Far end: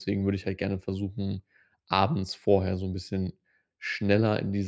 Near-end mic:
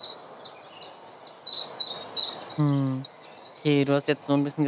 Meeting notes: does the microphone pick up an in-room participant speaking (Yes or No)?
Yes